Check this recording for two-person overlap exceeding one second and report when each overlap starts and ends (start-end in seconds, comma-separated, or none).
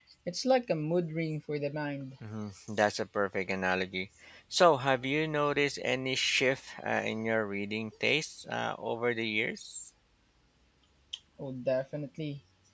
none